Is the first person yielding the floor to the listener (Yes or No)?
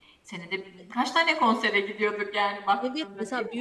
Yes